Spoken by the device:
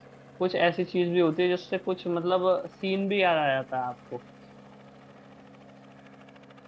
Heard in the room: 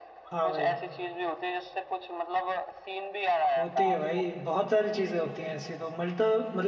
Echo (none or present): present